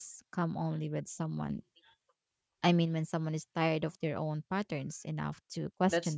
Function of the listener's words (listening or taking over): taking over